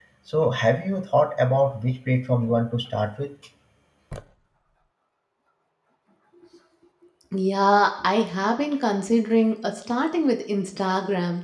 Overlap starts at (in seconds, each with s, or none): none